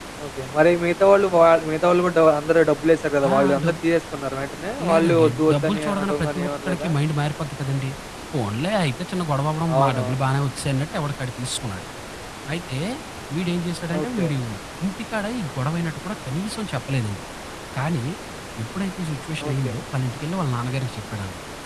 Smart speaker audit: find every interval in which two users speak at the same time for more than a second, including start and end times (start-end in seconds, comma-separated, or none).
4.9-6.9